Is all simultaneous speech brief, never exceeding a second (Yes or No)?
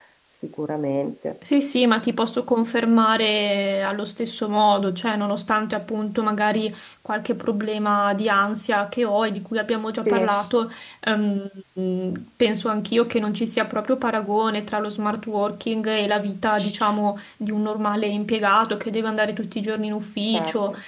Yes